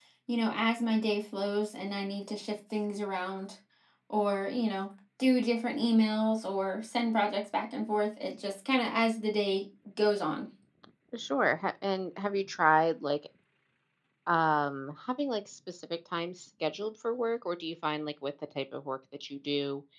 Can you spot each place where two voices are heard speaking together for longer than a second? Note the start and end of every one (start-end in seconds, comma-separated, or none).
none